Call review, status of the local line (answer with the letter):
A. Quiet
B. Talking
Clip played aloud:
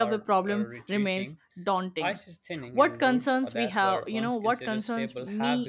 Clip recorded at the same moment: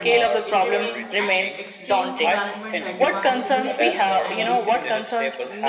B